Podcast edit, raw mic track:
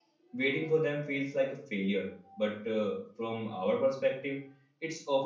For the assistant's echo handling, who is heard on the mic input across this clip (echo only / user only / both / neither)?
user only